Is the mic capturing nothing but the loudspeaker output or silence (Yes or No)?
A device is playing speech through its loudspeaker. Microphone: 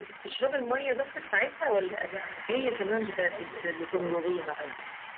No